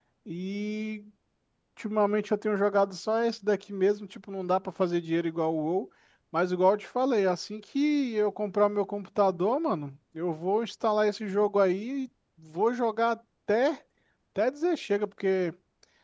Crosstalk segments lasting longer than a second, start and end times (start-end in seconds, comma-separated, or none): none